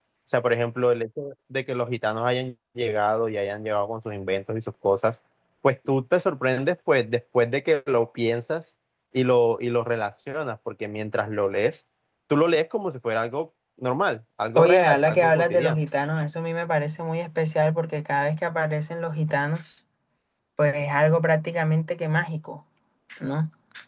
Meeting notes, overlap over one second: present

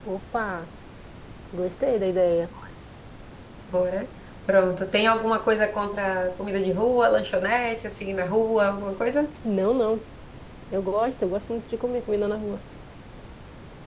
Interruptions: none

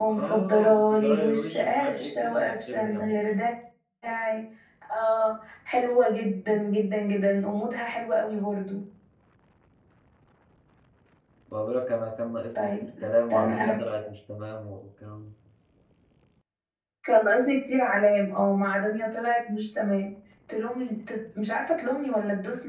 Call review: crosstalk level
present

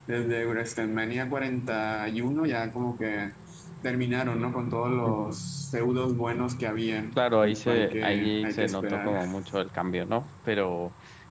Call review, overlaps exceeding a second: present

